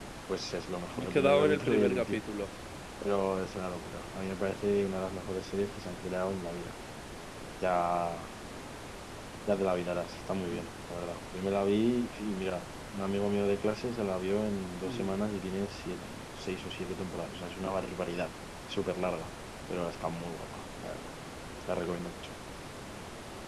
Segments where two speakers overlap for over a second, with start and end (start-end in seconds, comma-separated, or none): 0.9-2.2